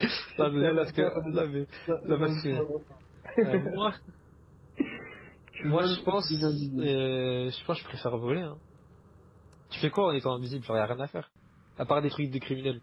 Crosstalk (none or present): present